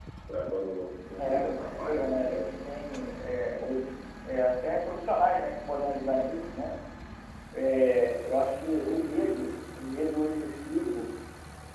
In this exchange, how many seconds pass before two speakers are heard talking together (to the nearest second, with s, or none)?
1 s